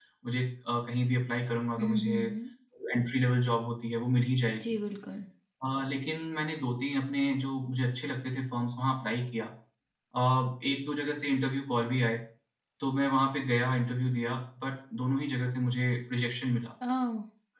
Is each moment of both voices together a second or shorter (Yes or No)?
Yes